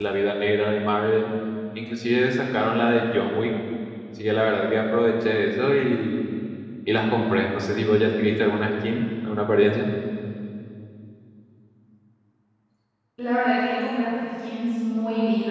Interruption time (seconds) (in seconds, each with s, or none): none